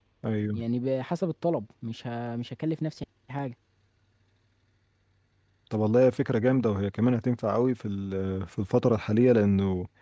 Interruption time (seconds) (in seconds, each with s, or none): none